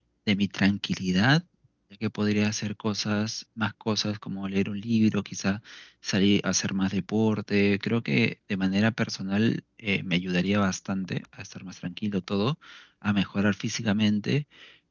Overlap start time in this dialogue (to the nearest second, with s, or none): none